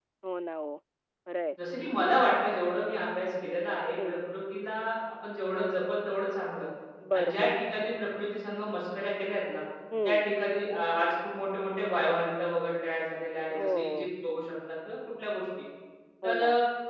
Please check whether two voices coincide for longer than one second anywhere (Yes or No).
No